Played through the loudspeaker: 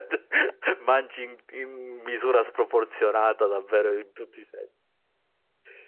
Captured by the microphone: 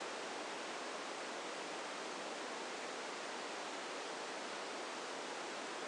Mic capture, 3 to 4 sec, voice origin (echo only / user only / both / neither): neither